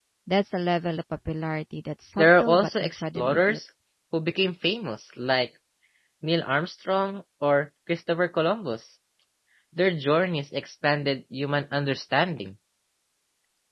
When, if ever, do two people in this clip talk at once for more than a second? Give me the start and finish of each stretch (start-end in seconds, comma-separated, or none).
2.2-3.6